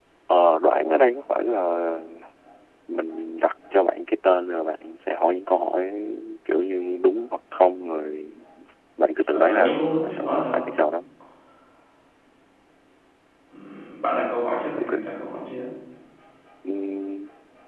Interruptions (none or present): present